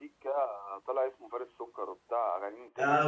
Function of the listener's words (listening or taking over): taking over